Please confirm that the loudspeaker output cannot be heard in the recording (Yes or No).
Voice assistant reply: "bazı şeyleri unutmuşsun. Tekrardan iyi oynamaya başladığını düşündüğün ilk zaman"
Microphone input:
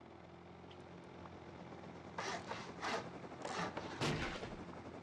Yes